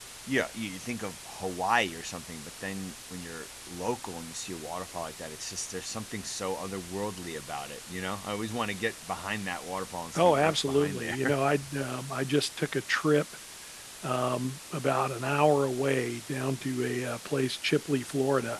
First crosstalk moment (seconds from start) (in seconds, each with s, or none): 10.1 s